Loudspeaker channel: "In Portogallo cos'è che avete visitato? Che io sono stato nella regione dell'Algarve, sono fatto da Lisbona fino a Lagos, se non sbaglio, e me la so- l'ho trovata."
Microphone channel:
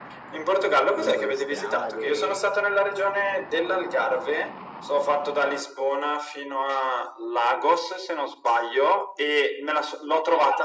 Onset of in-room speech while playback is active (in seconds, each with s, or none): 0.9 s